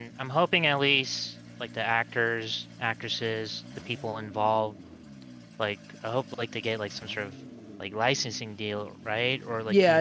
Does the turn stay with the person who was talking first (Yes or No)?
No